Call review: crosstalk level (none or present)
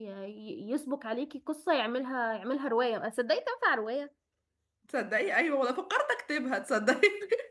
none